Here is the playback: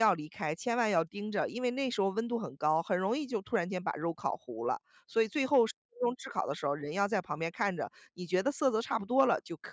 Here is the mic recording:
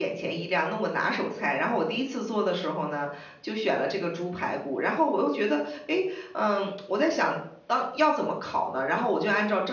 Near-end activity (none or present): present